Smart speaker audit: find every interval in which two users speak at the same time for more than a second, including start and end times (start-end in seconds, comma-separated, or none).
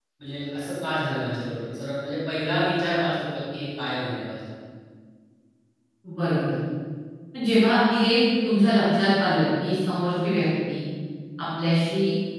none